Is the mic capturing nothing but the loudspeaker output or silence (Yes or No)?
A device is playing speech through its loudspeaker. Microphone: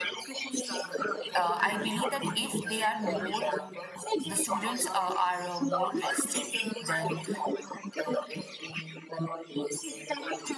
No